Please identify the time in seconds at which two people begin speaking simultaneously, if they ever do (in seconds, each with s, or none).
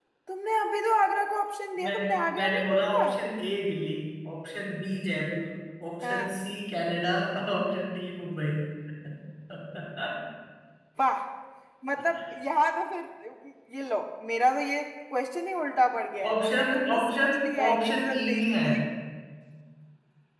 1.8 s